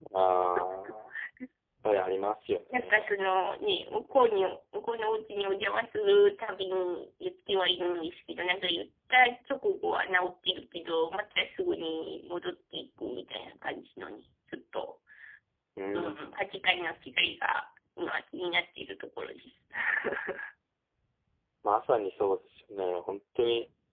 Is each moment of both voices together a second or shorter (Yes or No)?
Yes